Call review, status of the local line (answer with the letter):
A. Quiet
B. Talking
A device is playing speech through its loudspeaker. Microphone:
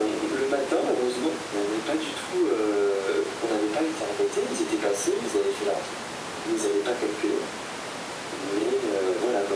A